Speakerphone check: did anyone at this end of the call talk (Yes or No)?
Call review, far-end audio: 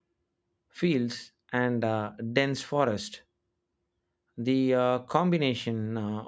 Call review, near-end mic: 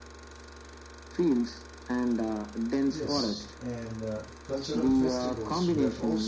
Yes